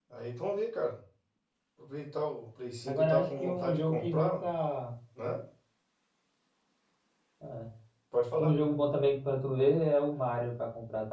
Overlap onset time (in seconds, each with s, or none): 2.9 s